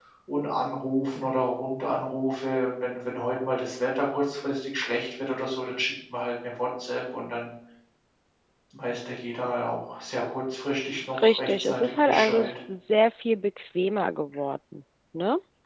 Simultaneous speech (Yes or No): Yes